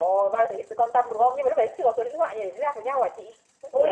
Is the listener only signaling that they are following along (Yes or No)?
No